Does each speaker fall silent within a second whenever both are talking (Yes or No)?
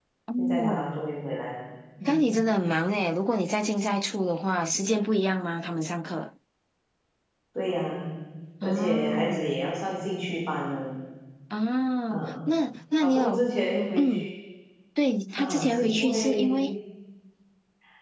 No